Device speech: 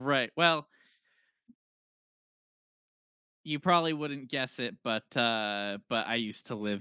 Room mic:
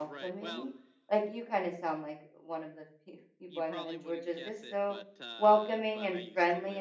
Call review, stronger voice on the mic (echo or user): user